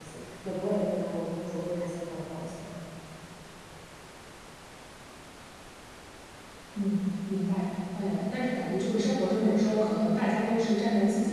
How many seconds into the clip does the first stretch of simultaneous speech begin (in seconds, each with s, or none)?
none